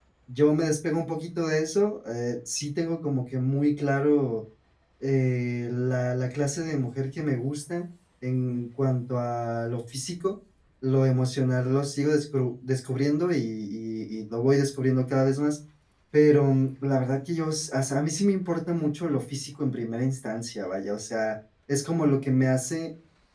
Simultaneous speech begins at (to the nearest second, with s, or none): none